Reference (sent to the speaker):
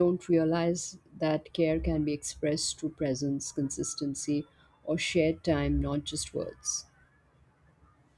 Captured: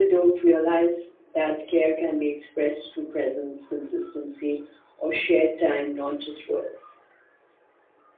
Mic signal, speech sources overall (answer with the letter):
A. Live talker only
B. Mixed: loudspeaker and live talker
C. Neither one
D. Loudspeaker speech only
D